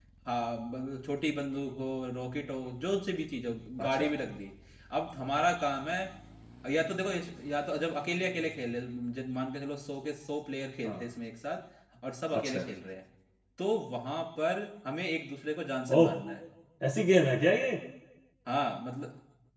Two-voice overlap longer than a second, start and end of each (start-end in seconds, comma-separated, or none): none